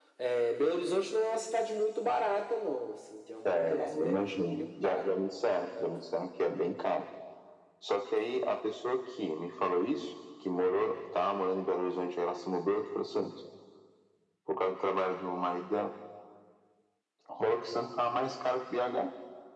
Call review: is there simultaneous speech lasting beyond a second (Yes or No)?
Yes